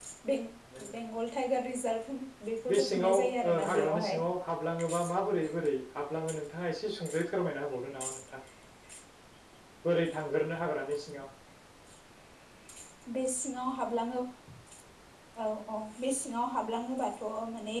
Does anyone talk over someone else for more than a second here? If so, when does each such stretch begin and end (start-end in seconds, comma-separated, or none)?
2.7-4.2